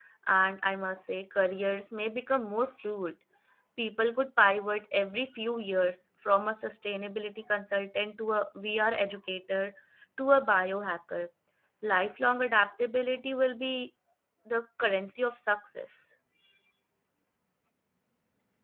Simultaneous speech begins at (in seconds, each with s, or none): none